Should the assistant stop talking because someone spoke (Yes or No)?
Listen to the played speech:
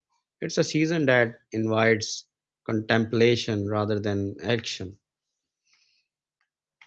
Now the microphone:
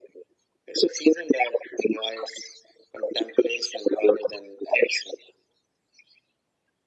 No